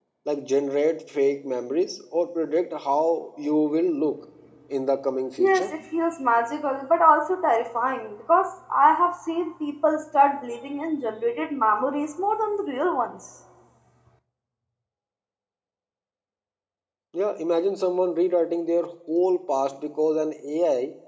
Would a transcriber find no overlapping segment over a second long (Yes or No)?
Yes